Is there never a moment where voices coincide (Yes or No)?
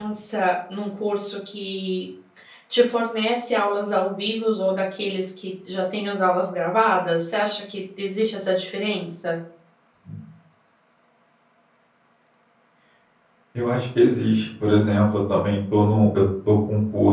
Yes